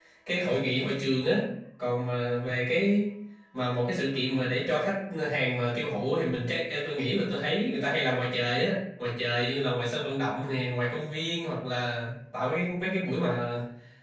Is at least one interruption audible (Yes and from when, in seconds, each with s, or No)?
No